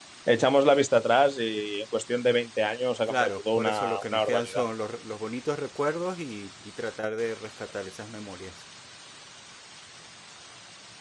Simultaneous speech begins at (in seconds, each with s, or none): 3.1 s